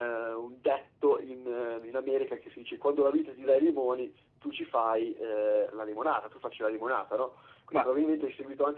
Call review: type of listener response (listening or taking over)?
listening